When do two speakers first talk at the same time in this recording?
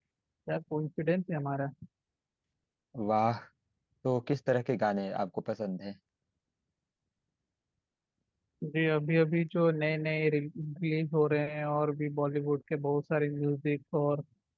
none

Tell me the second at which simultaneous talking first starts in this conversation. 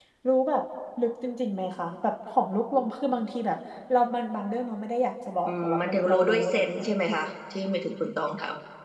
5 s

